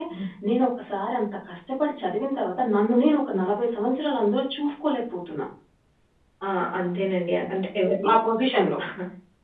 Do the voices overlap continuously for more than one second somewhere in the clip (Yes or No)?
No